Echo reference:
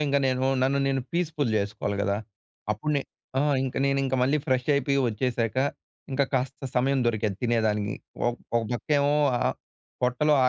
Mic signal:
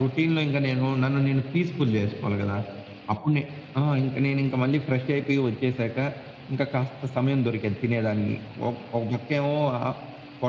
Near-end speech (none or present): none